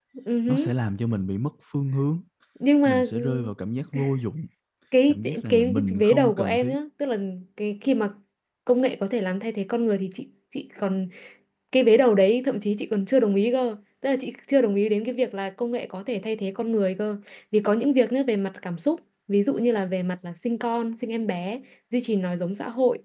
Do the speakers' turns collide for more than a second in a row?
Yes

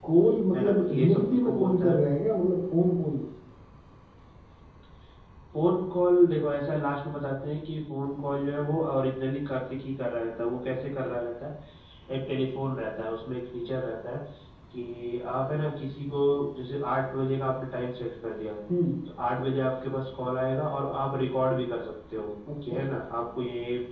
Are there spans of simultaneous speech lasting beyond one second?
Yes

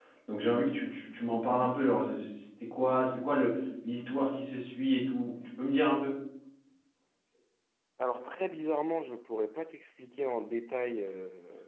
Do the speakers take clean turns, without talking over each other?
Yes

